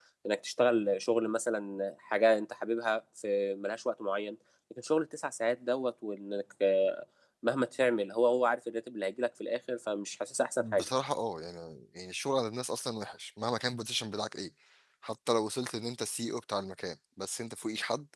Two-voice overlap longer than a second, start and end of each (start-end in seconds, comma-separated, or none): none